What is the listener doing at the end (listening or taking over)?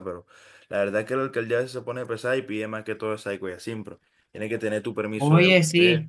taking over